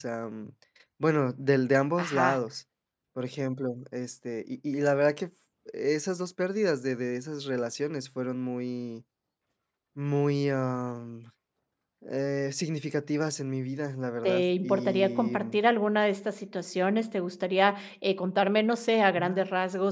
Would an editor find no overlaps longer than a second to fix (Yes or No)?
No